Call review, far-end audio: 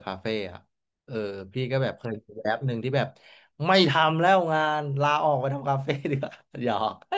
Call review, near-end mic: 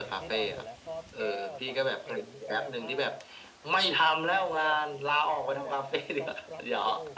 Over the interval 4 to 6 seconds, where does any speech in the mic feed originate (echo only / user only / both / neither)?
both